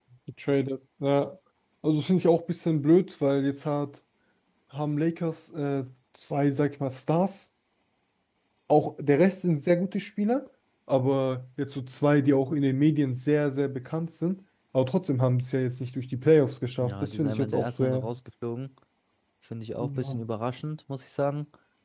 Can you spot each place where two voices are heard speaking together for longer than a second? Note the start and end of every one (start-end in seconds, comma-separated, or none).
16.8-18.1